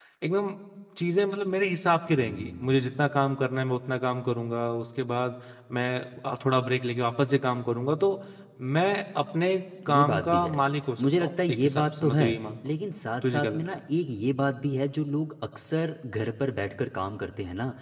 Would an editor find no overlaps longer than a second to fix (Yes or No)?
No